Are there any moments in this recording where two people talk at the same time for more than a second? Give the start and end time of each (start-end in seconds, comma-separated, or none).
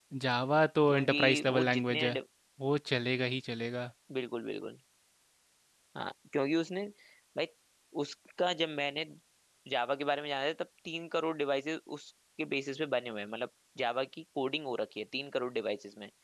0.9-2.2